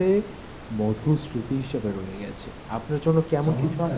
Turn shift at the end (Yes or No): Yes